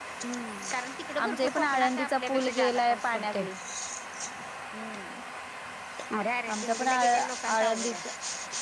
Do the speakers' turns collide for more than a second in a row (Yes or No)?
Yes